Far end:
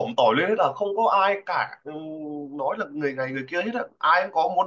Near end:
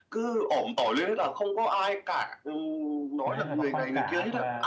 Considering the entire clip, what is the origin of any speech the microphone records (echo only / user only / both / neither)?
both